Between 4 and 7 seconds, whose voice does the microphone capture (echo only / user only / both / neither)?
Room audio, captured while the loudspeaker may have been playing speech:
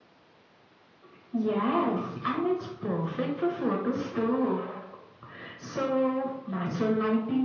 echo only